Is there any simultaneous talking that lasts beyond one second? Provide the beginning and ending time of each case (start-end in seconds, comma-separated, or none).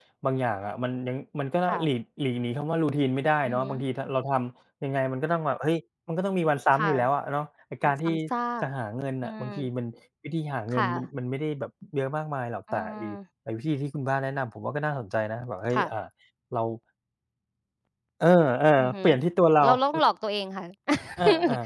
none